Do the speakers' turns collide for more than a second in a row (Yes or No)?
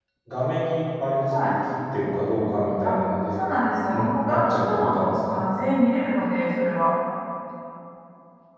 Yes